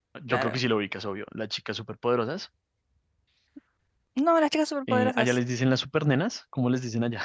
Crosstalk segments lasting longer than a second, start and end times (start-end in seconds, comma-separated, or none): none